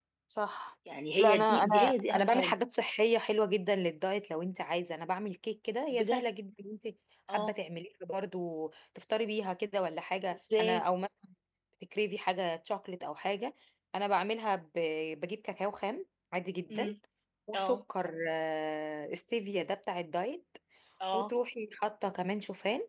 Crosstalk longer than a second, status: present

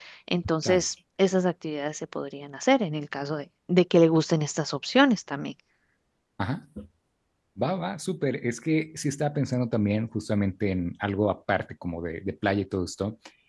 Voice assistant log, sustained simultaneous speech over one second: none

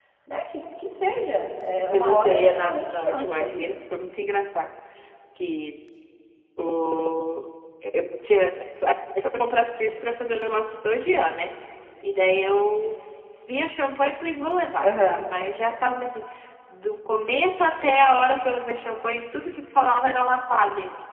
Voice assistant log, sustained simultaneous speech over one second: present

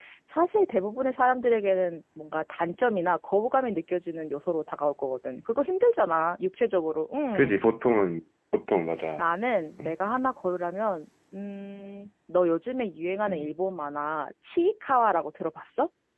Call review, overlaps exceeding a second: none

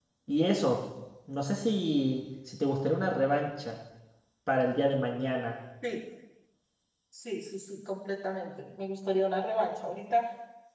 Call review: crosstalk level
none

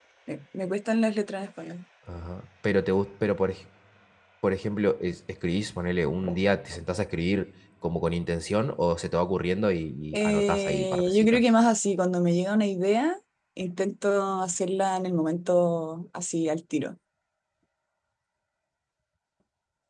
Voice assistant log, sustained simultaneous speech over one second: present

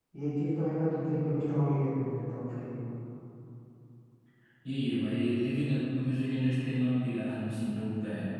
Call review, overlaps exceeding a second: none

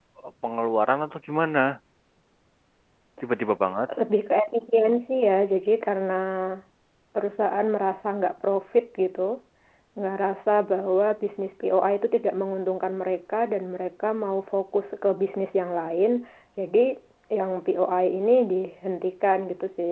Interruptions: none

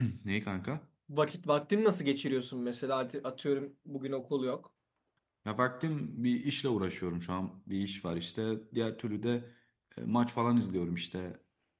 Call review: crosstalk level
none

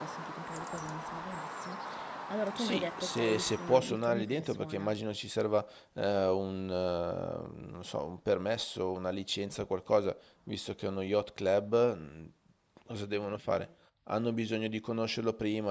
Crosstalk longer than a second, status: present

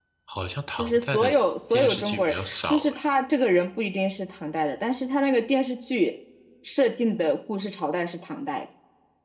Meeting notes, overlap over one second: present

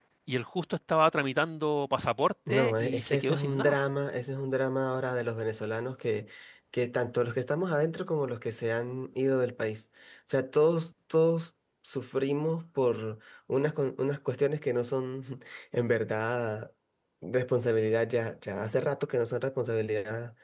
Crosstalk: present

